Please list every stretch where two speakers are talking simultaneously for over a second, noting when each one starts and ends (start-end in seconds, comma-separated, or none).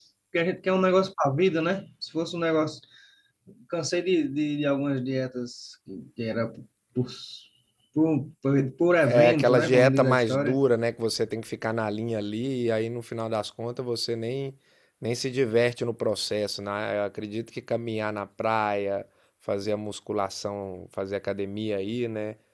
9.0-10.6